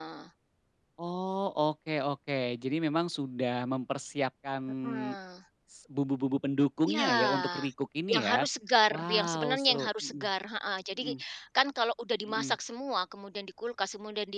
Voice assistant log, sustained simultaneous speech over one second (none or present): present